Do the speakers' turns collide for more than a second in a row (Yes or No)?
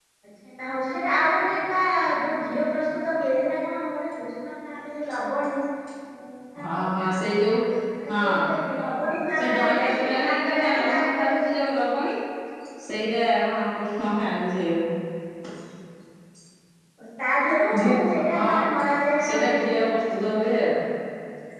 Yes